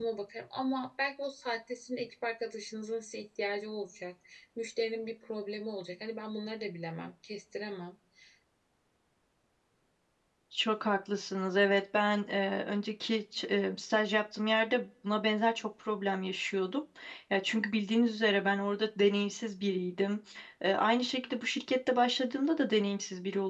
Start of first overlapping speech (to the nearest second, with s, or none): none